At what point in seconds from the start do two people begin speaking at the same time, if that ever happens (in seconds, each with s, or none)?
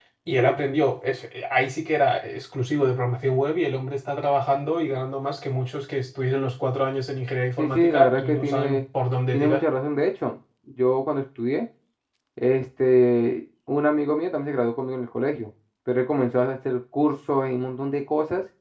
7.6 s